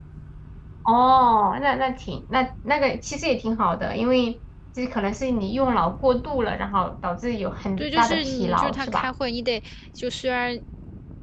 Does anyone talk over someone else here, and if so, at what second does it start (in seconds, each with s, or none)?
7.8 s